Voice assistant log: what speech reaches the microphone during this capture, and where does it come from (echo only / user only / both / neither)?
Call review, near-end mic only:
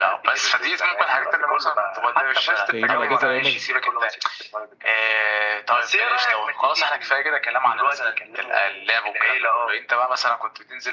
both